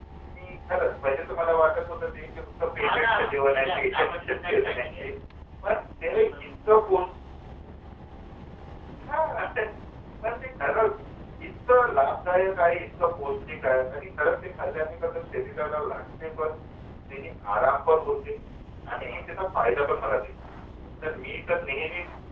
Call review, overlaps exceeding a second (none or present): present